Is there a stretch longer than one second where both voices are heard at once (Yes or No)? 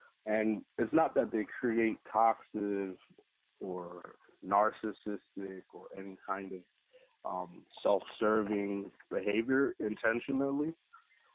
No